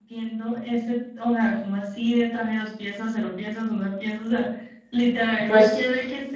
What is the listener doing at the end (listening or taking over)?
listening